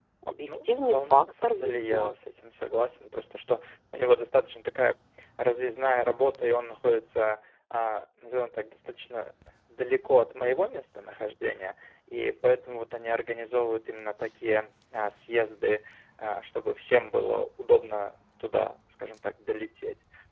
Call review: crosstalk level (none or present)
present